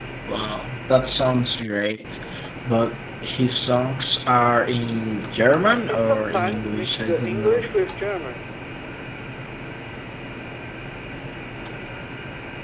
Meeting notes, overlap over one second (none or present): present